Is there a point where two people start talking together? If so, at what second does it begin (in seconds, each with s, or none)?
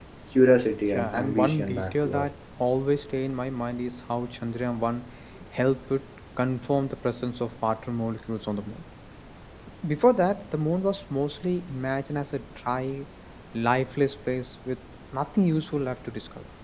1.0 s